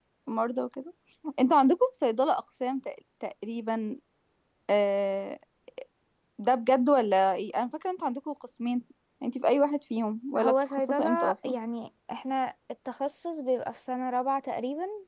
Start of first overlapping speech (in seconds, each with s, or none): 10.3 s